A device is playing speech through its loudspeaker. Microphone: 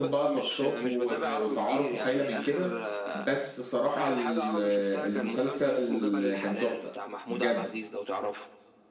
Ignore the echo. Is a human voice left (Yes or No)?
Yes